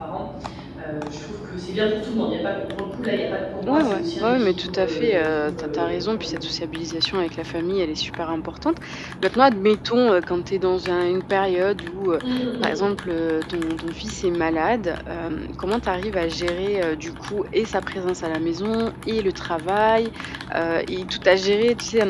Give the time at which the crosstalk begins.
3.7 s

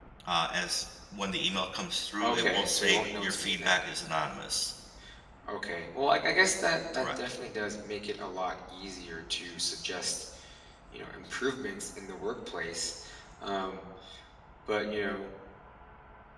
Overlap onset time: 2.2 s

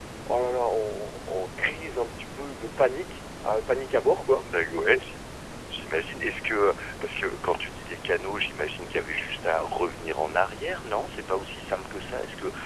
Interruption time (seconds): none

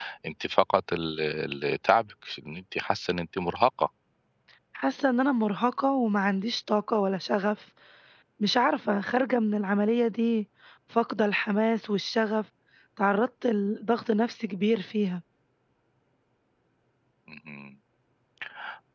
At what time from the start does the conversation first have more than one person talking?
none

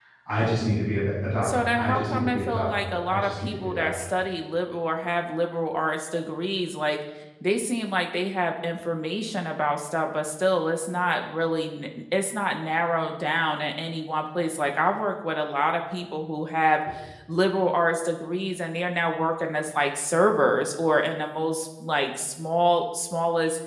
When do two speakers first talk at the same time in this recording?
1.4 s

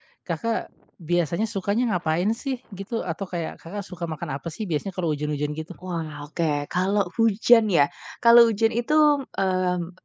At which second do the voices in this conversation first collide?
none

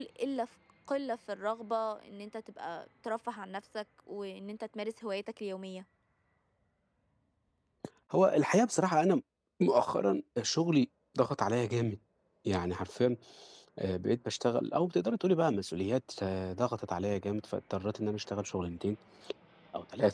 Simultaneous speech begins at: none

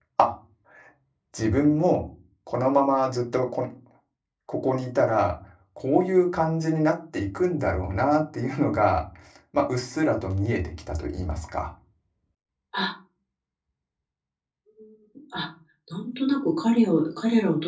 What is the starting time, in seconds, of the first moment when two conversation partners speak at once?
none

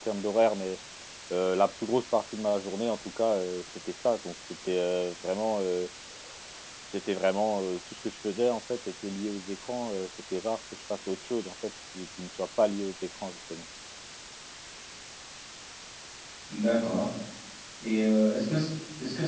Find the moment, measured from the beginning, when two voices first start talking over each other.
none

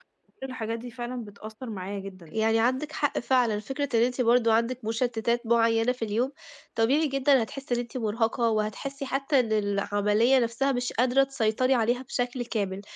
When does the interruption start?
none

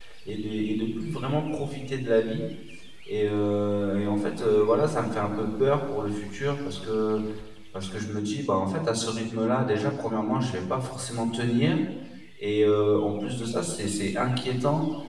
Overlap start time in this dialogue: none

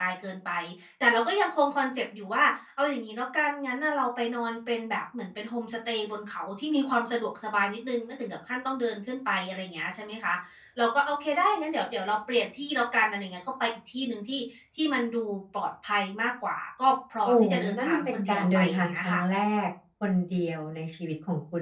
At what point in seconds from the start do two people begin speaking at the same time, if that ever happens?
17.2 s

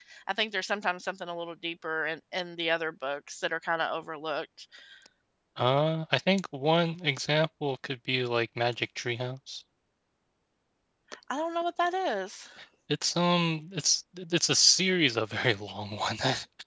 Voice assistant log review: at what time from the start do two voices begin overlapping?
none

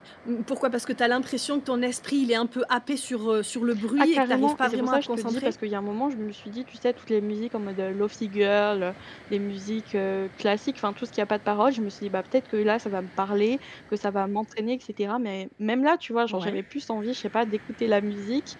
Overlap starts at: 4.0 s

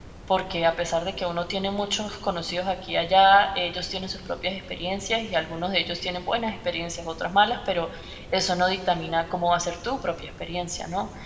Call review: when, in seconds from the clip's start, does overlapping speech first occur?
none

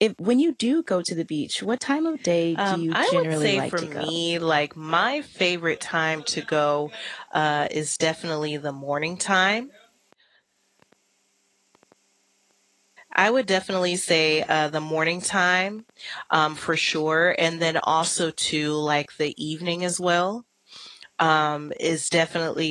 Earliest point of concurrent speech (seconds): 2.6 s

